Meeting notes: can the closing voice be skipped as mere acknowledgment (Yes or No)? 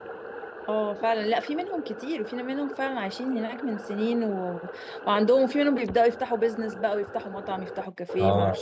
No